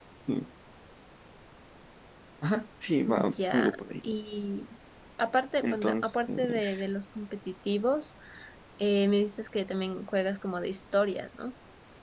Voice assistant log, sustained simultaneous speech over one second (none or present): present